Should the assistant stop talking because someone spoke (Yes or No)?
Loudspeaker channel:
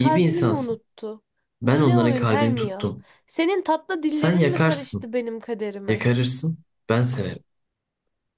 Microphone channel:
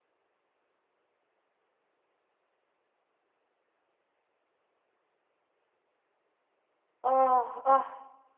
Yes